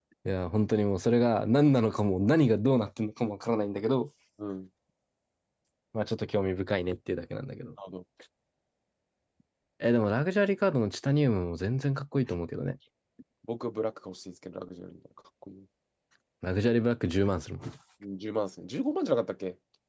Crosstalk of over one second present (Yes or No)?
No